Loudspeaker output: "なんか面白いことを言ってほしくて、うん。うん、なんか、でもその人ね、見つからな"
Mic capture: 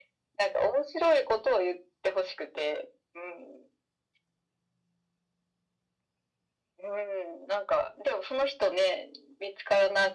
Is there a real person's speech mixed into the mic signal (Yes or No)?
No